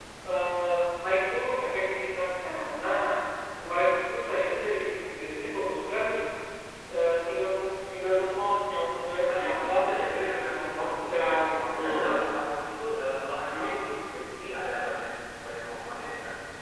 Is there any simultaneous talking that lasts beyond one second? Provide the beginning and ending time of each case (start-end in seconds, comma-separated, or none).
9.3-12.1